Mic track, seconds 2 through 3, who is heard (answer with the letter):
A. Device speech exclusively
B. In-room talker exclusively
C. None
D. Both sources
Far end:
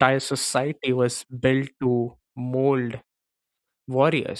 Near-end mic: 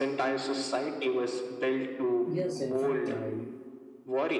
D